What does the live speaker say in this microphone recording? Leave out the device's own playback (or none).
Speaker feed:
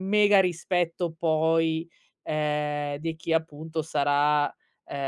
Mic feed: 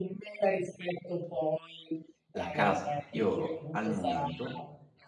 la casa. Io al momento